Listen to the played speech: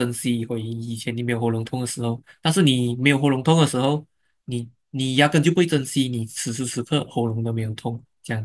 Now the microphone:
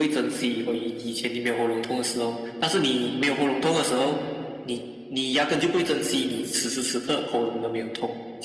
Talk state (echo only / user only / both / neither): echo only